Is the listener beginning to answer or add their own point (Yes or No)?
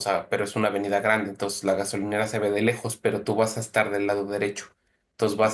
No